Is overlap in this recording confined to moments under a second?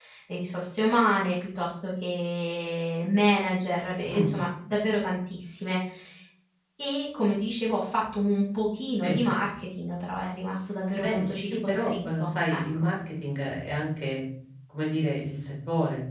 No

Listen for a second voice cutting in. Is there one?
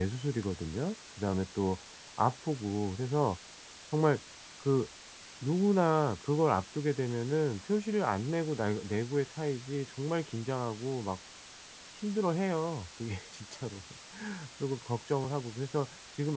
No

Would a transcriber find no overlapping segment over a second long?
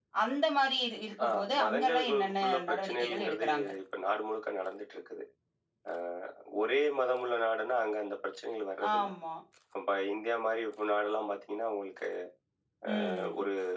No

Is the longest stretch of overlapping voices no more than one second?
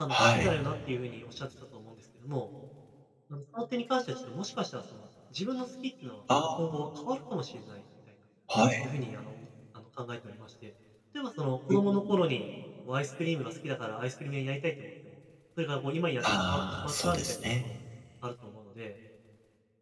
No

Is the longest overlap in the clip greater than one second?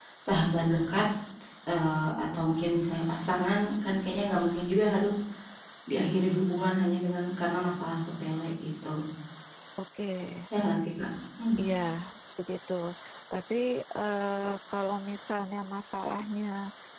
No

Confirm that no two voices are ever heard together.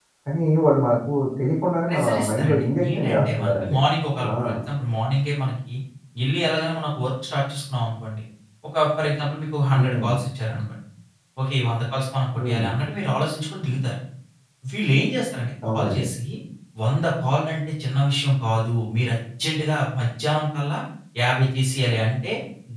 No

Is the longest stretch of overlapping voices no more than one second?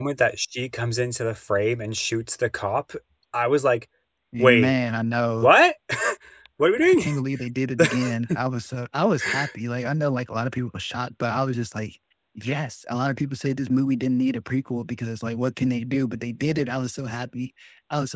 Yes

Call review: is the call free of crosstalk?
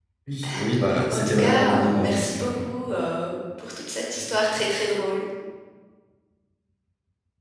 No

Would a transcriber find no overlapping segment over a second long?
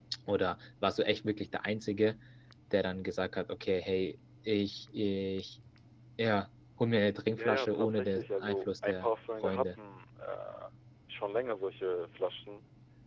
No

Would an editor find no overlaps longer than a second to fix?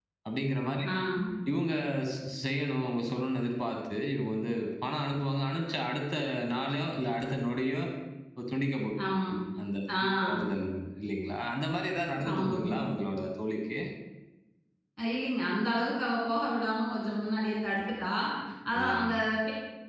Yes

